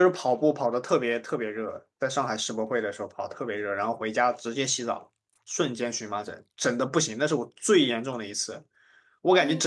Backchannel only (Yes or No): Yes